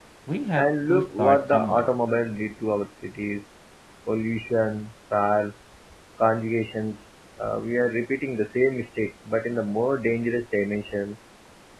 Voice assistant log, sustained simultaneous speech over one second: present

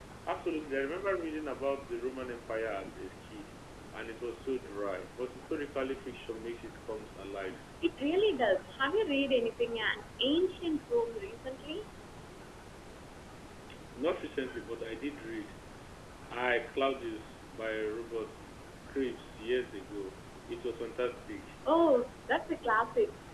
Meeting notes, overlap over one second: none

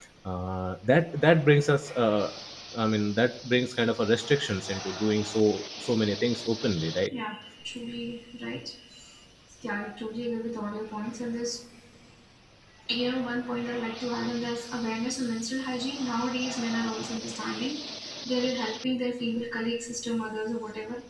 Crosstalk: none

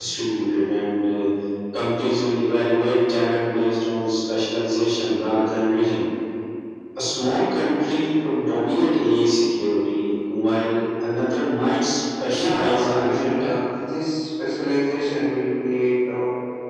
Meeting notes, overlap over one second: present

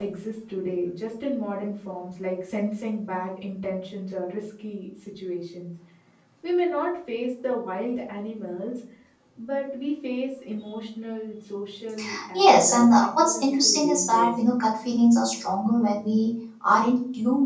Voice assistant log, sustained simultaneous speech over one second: present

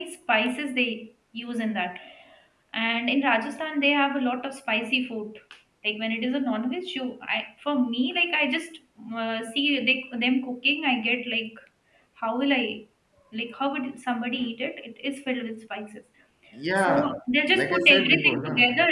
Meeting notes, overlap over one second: present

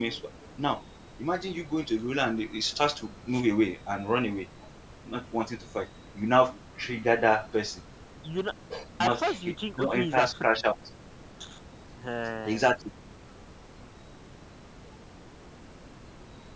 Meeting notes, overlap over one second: present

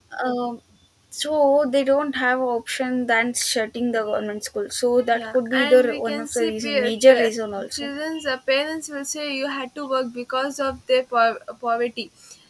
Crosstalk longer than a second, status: present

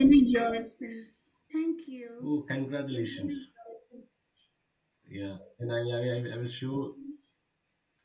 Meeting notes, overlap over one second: none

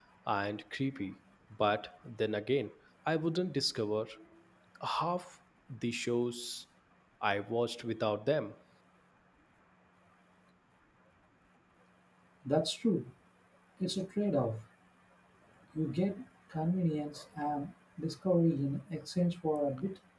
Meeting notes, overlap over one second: none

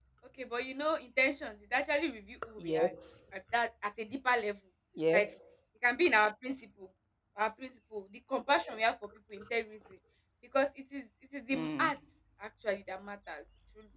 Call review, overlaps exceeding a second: none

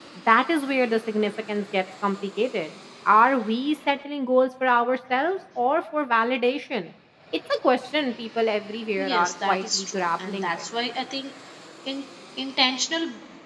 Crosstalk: present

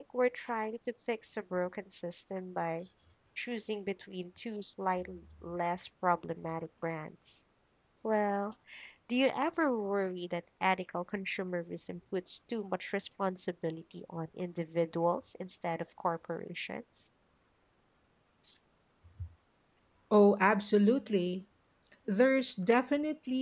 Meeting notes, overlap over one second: none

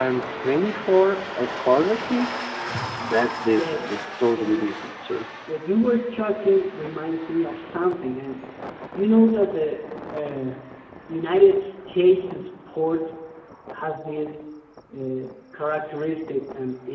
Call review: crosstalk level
present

